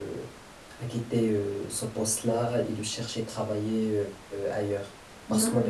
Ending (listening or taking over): listening